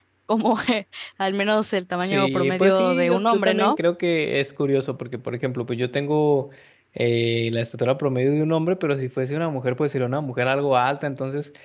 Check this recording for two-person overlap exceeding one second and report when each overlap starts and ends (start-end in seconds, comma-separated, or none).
2.0-3.8